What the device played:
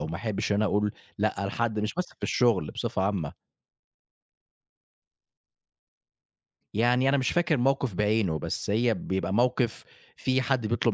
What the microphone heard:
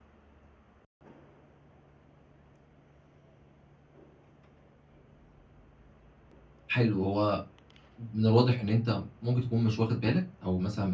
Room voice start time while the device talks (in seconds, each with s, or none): 6.7 s